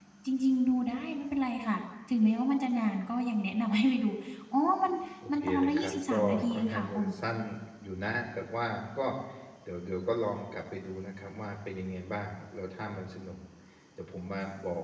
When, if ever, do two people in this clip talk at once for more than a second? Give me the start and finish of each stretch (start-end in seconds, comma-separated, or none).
5.4-7.1